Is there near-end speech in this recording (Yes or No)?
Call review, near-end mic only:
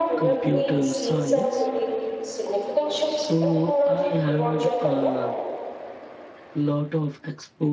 Yes